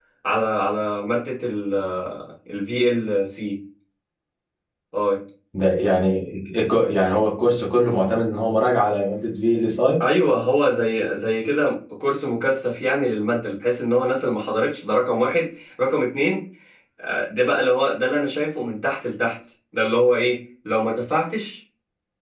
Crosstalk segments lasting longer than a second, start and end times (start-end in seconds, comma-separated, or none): none